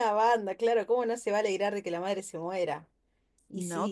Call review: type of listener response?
taking over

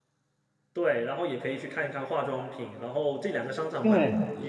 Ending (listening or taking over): listening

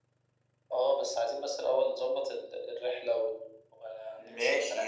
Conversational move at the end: taking over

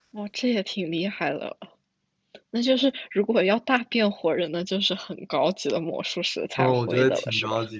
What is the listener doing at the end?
taking over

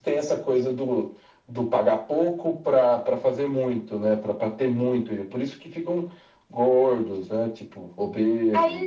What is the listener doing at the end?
taking over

